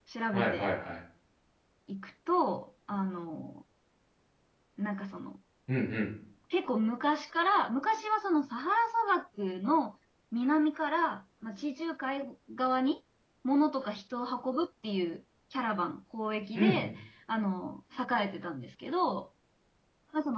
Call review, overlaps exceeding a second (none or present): none